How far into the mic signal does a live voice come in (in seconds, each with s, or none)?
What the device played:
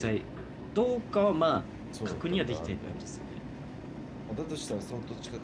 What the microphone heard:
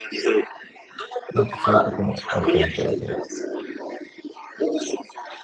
1.3 s